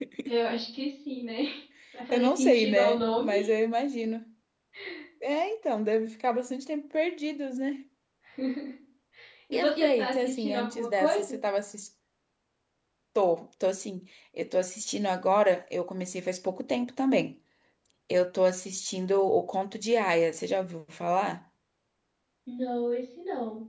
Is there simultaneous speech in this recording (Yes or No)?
Yes